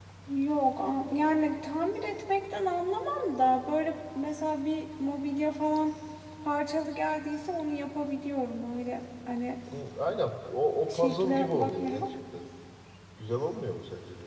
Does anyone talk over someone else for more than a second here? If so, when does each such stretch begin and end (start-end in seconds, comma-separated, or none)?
10.9-12.1